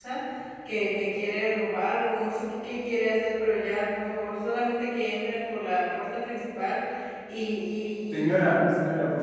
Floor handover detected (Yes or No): Yes